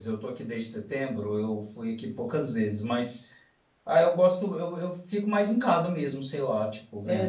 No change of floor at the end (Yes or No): No